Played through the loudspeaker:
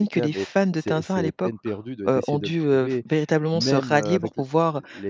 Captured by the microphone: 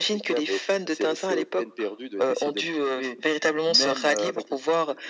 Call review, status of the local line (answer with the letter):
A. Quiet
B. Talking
A